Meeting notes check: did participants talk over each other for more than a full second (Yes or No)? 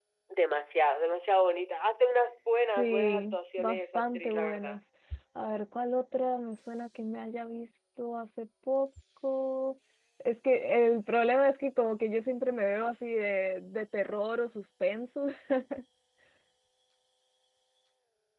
Yes